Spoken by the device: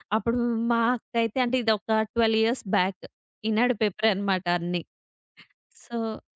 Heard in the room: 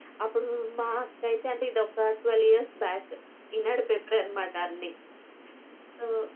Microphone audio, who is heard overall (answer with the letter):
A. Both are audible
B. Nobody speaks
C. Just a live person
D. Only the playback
D